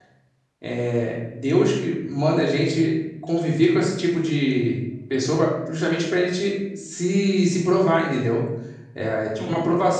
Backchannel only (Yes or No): Yes